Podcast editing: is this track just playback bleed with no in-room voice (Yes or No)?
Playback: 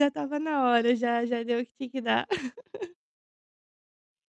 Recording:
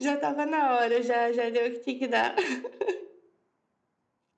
Yes